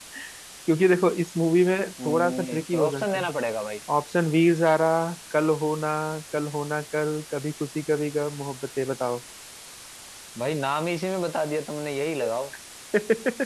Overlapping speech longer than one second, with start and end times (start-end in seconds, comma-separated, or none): 2.0-3.3